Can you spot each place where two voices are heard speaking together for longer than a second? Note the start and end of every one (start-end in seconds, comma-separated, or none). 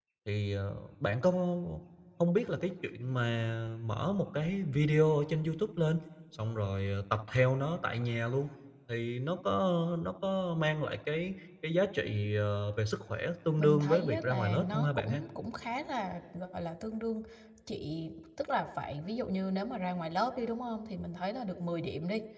13.6-15.2